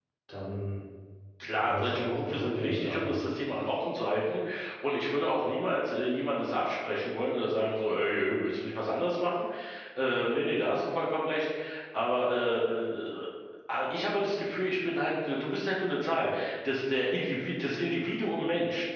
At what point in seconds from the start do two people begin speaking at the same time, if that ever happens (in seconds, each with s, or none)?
1.6 s